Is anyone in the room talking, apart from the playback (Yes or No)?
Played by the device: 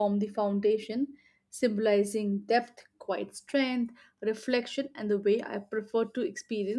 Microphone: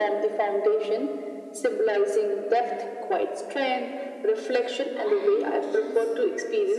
Yes